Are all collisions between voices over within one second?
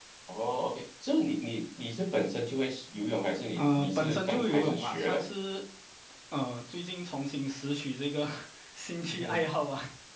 No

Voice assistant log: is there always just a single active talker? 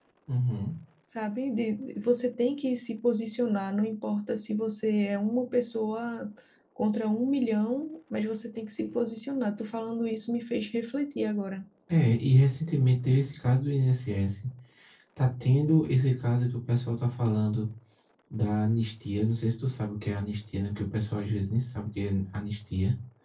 Yes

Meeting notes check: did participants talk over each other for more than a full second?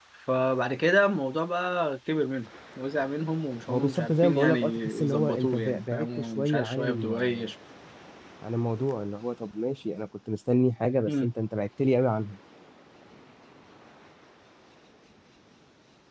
Yes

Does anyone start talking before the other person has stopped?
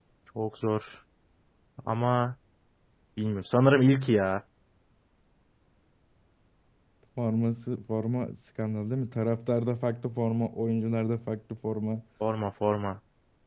No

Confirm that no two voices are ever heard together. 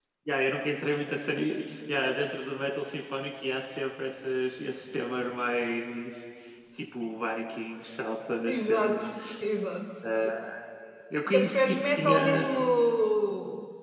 No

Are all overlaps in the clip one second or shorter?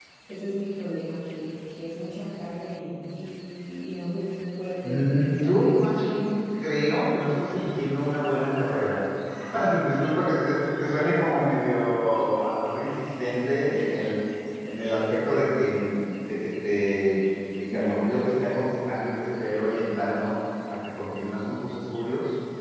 No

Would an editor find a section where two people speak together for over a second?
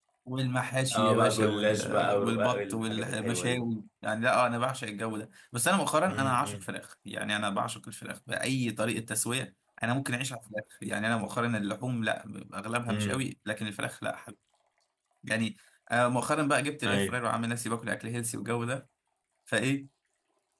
Yes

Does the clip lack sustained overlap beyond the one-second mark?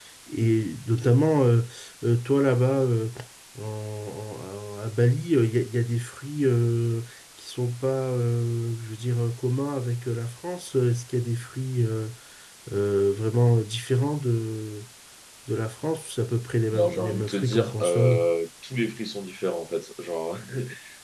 No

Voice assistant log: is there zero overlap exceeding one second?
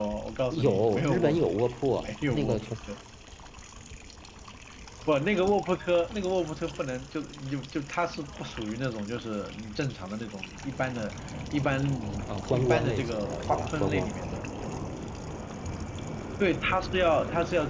No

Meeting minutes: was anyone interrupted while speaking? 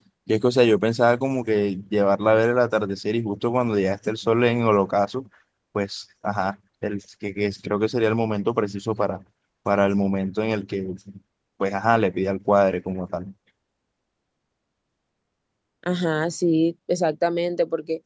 No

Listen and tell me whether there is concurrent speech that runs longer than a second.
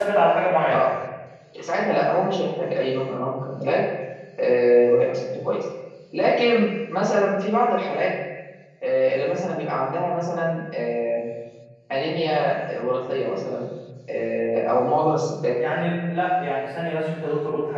No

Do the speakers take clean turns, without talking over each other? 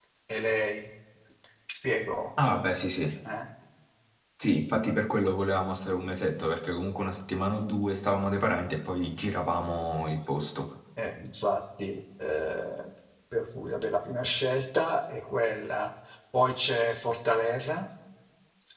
Yes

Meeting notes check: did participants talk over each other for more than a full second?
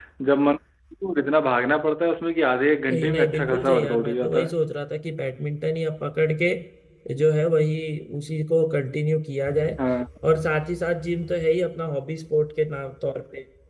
Yes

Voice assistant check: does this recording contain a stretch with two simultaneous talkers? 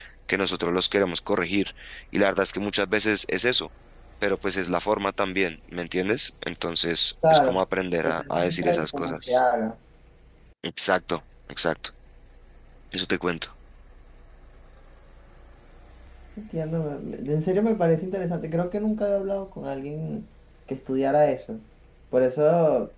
Yes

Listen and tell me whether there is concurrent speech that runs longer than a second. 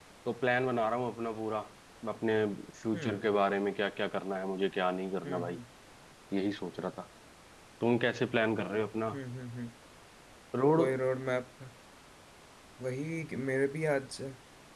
No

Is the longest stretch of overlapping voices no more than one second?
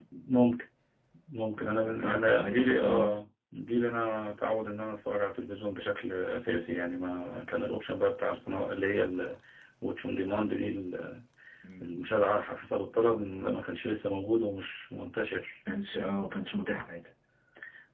No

